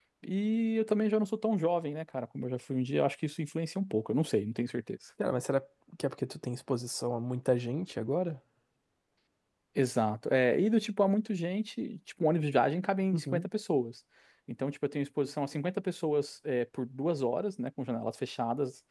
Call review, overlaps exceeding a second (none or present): none